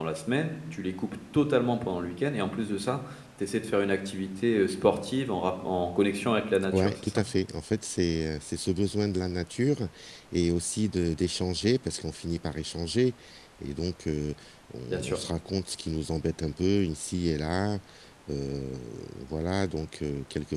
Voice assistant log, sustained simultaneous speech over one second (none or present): none